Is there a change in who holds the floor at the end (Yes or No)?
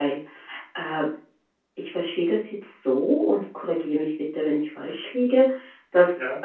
No